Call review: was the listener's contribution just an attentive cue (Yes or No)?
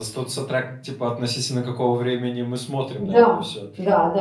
No